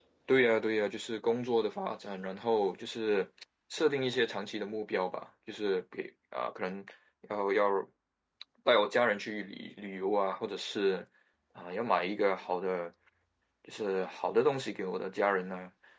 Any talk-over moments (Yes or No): No